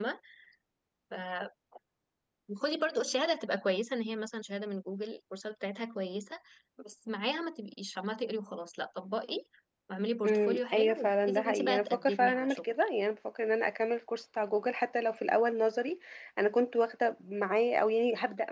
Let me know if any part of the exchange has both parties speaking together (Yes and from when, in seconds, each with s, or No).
Yes, from 10.2 s